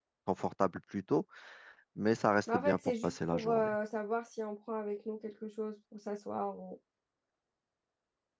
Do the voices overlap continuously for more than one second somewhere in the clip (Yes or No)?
Yes